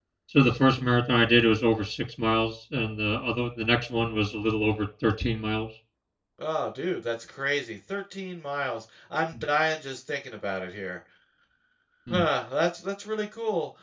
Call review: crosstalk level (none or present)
none